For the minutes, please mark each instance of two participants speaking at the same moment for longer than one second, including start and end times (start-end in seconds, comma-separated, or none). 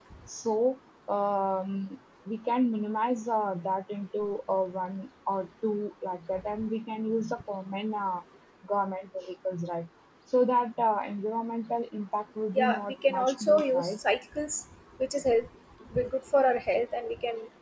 12.6-14.0